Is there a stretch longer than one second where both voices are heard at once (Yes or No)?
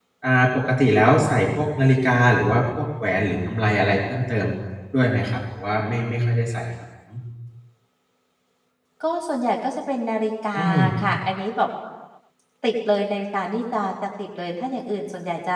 No